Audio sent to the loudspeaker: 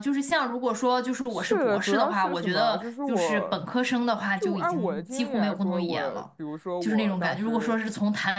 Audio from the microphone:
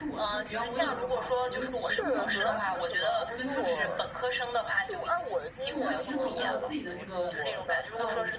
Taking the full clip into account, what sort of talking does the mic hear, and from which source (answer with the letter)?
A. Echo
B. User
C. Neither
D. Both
D